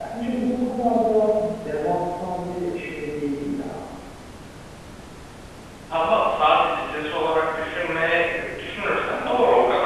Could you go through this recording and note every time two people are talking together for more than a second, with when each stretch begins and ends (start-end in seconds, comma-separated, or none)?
none